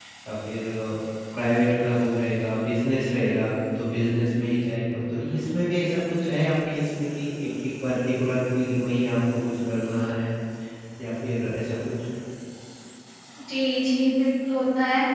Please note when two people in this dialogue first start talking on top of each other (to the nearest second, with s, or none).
none